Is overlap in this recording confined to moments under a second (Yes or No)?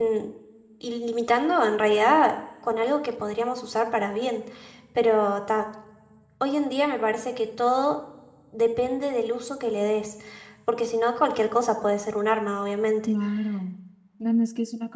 Yes